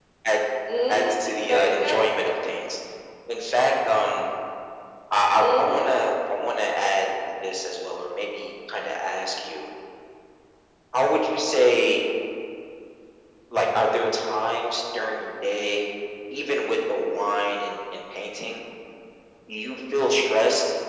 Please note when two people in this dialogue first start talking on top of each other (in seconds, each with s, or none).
0.9 s